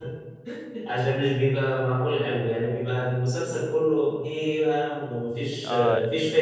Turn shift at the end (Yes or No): Yes